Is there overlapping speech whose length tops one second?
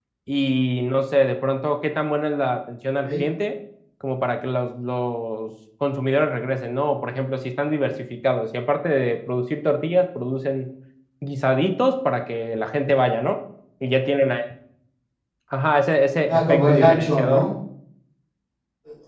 Yes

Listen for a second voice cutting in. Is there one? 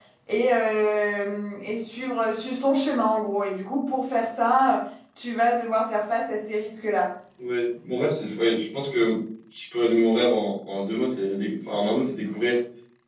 No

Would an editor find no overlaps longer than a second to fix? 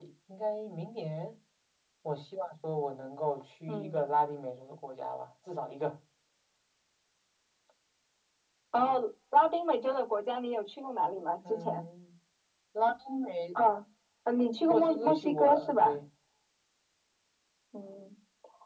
No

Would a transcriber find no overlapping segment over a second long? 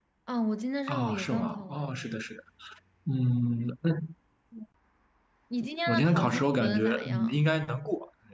No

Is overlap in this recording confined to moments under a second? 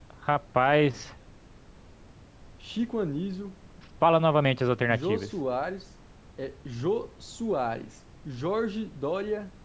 Yes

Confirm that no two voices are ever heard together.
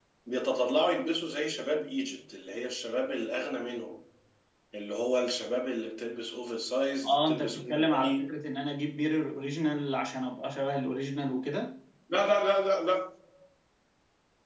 No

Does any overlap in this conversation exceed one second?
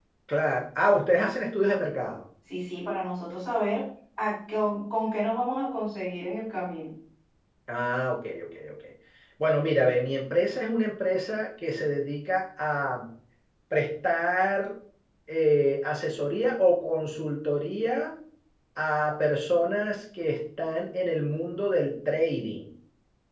No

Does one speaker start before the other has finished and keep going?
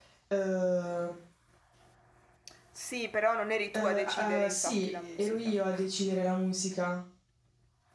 Yes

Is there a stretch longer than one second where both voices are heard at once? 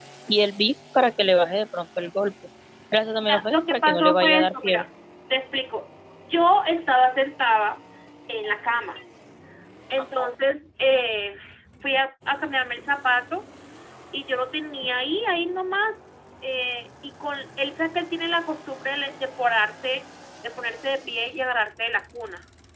Yes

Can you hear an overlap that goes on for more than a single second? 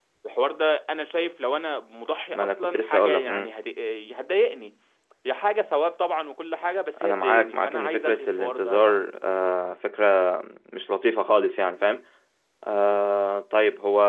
Yes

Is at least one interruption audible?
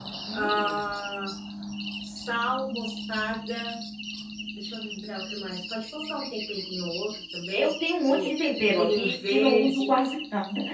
Yes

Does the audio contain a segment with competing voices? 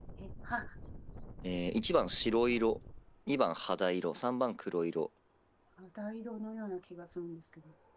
No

